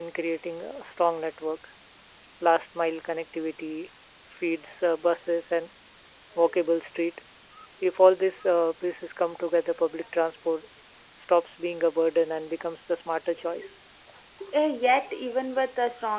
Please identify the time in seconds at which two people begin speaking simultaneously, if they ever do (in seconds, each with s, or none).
none